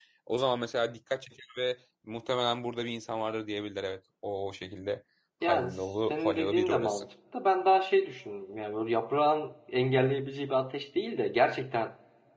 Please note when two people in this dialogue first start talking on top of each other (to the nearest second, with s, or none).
5 s